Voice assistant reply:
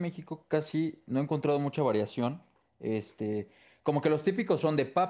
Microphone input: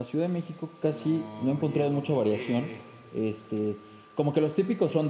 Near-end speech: present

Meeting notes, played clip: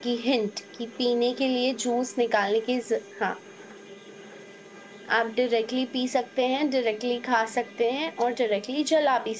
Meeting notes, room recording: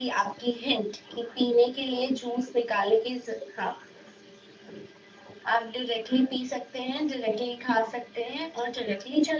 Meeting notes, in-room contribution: none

